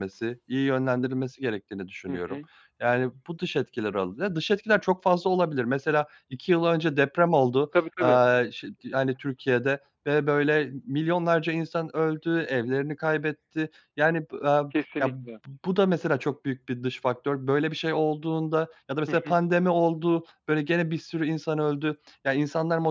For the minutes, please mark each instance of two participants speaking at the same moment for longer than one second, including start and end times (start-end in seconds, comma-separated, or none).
none